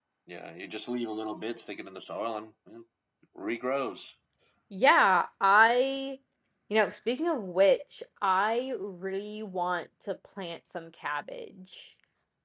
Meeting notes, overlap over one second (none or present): none